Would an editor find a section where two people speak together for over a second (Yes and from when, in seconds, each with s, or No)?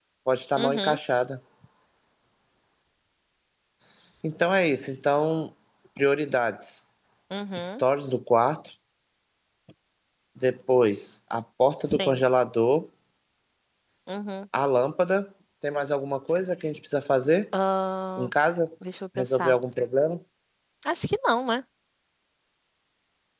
No